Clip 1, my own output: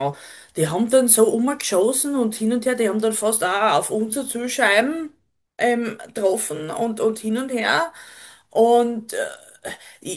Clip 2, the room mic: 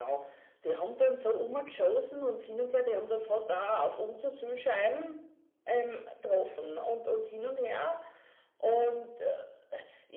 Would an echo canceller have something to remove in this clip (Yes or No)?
Yes